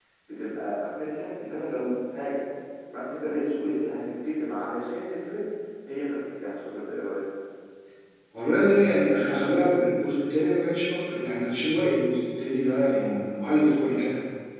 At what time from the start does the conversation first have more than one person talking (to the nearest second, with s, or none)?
none